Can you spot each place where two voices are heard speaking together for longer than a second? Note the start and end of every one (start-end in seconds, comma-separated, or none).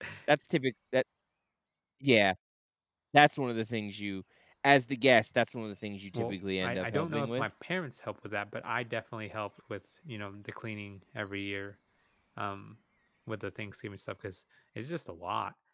6.1-7.5